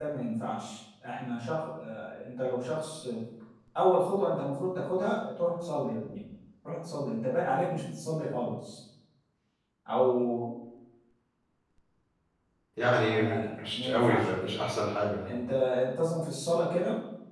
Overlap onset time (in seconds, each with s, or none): 12.9 s